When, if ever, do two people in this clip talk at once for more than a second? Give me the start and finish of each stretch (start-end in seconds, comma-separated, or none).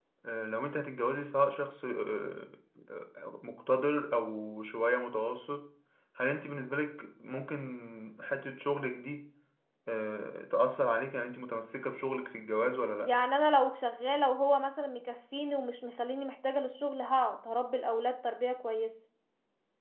none